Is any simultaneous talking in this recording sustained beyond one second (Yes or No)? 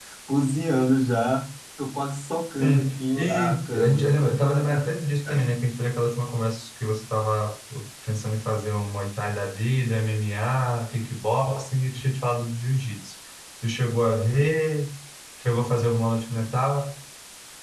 Yes